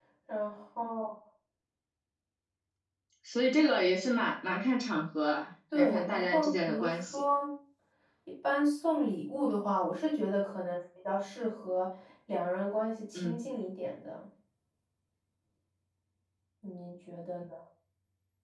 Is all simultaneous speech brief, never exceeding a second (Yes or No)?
No